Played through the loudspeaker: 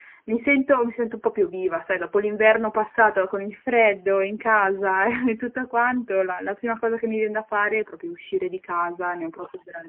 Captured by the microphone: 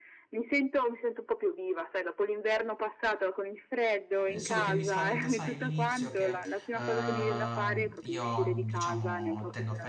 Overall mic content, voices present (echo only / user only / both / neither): both